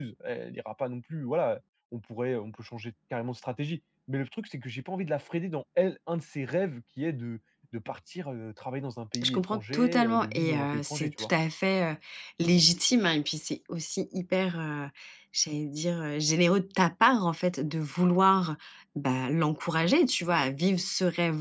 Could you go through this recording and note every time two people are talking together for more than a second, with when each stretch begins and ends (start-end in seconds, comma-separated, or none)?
9.2-11.3